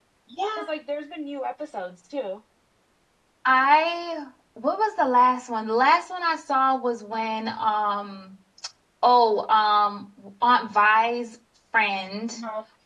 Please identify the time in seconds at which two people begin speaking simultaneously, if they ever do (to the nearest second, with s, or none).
none